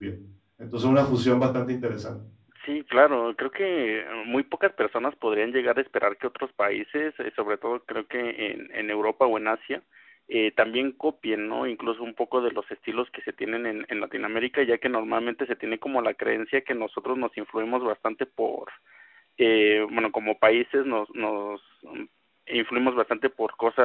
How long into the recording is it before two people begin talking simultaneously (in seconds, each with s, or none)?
none